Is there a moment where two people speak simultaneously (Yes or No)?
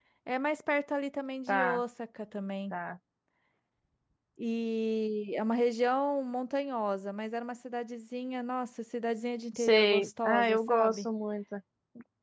Yes